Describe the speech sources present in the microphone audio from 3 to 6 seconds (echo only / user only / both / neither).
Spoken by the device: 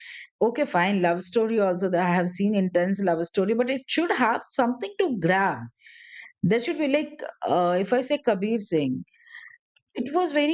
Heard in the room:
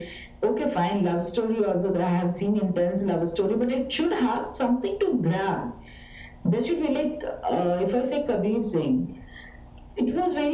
echo only